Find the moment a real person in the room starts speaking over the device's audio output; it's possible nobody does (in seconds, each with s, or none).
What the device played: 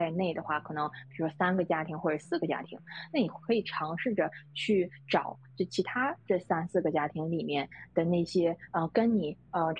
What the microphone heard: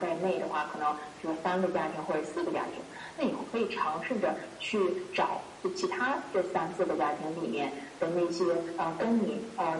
none